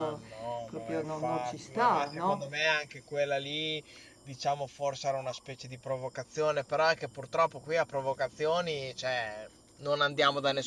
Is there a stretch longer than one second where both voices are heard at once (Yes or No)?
Yes